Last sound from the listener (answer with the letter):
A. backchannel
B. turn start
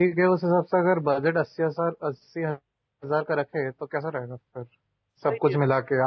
A